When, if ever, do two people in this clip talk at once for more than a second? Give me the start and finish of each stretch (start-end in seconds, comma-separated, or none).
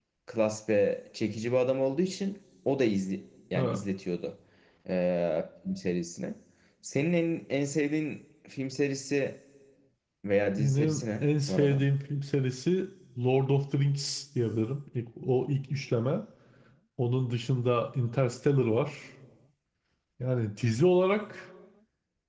10.6-11.8